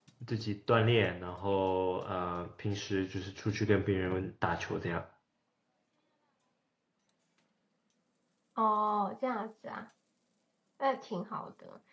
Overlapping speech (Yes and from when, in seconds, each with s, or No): No